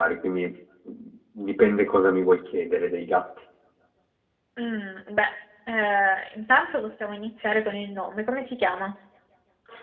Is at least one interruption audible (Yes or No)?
No